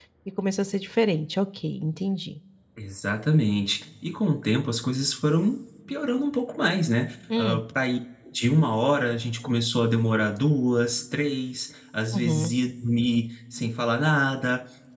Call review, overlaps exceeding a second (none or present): none